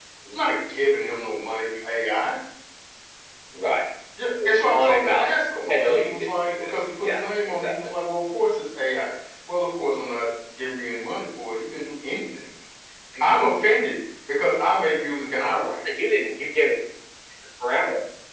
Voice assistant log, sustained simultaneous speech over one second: present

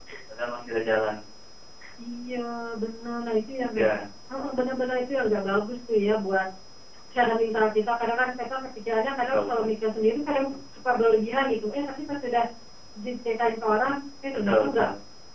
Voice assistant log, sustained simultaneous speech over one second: none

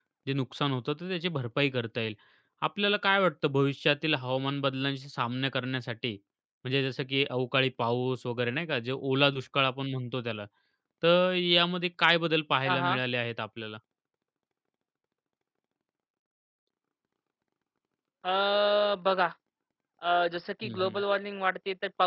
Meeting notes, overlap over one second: none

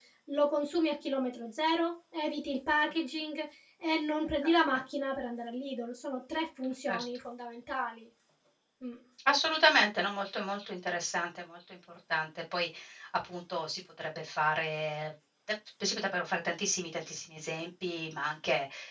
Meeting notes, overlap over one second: none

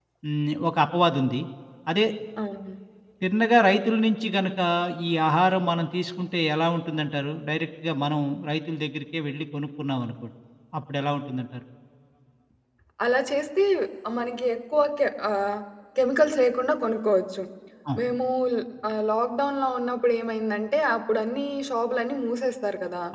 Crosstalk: none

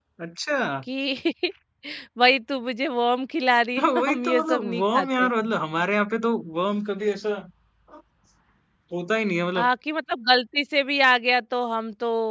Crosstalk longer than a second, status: present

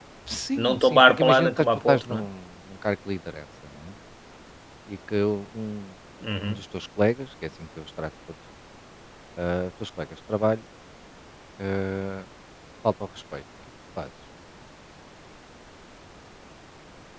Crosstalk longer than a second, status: present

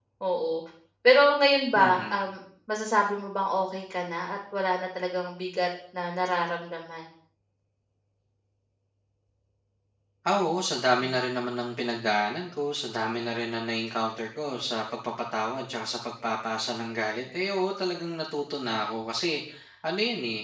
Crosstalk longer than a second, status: none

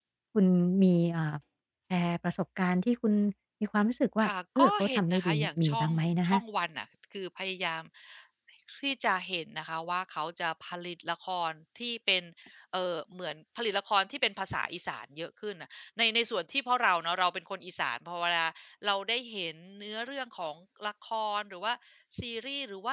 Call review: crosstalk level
present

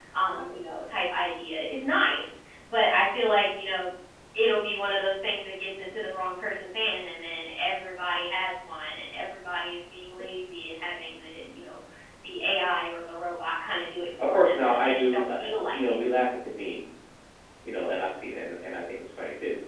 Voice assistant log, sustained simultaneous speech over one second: present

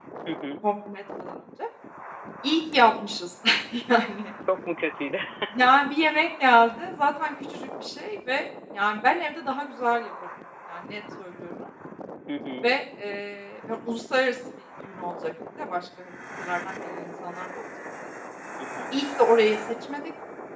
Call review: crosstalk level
none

